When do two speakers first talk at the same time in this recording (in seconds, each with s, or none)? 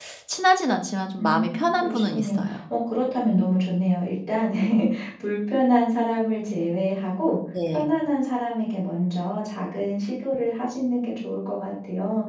1.2 s